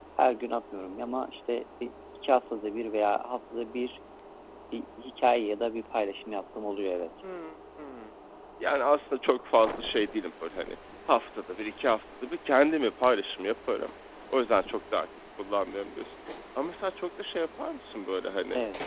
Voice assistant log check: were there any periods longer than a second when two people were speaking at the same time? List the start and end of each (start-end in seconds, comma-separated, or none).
none